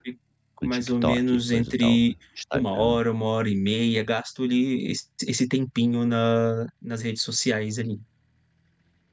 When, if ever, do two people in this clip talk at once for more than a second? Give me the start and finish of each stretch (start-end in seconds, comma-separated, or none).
0.6-2.1